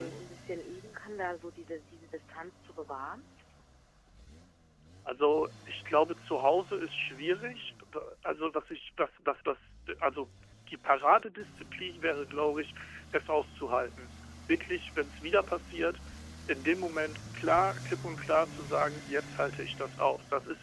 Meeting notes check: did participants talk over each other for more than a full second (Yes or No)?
No